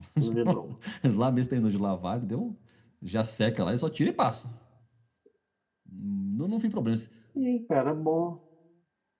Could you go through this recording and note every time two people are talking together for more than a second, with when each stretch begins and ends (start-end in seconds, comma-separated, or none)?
none